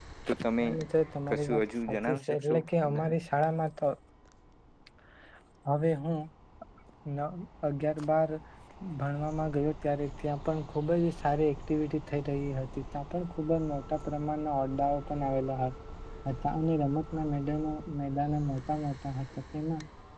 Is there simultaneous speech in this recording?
Yes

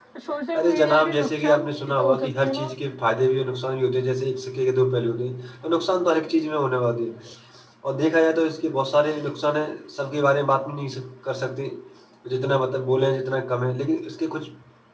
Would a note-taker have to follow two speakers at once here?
Yes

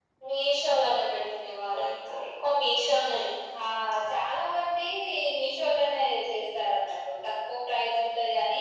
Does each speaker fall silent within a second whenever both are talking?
Yes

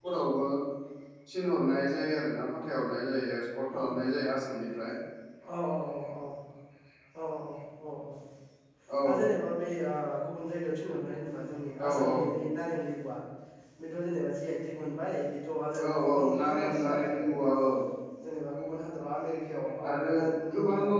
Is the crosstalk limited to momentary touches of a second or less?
No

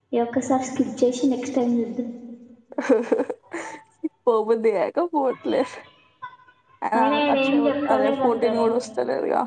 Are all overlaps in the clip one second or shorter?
No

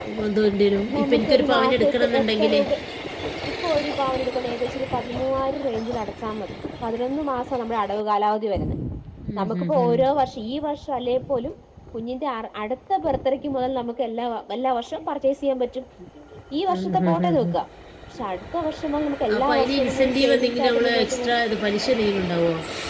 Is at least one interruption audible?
Yes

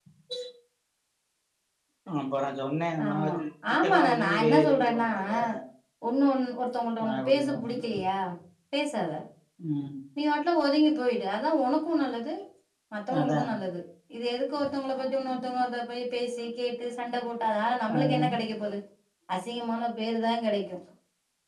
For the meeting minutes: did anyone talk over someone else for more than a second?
Yes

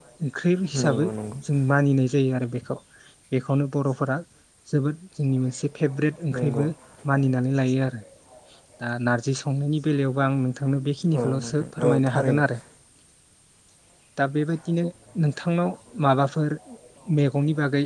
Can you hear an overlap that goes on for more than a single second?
Yes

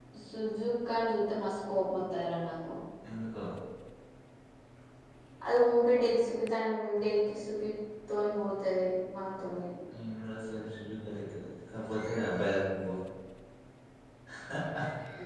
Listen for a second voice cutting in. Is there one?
No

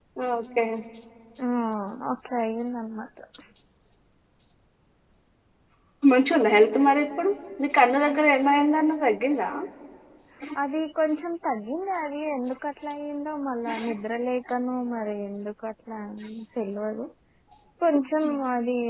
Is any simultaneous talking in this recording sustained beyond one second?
No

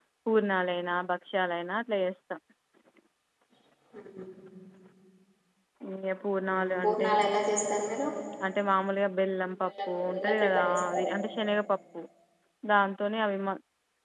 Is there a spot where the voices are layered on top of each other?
Yes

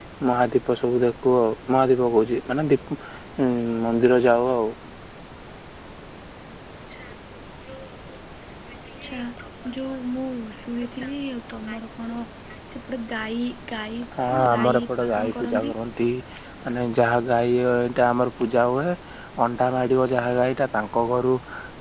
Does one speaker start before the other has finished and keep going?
Yes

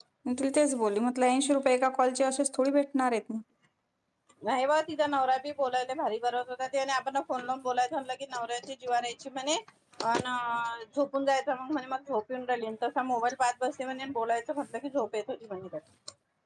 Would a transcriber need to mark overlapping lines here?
No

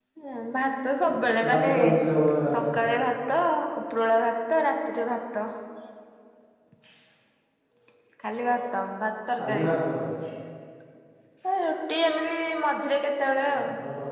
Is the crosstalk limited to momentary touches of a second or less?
Yes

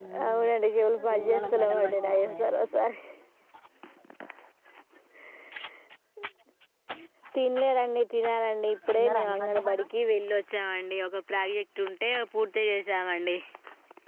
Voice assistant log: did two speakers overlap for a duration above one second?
Yes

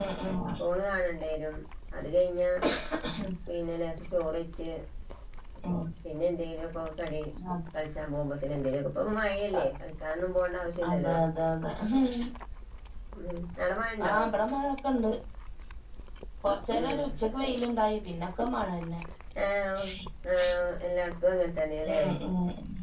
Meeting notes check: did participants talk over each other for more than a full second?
No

